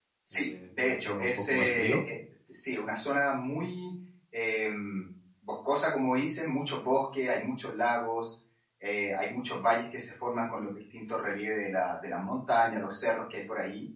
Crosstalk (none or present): present